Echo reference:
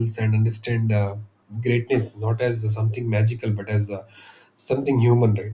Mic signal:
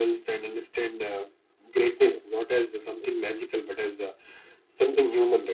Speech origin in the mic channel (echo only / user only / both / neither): echo only